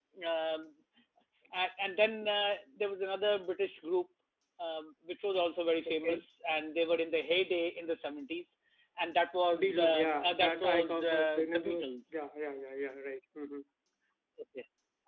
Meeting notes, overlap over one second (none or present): present